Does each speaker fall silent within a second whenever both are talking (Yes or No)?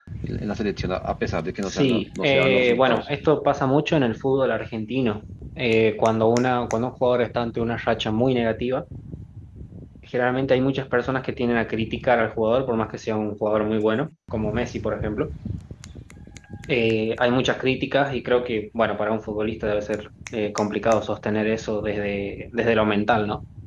No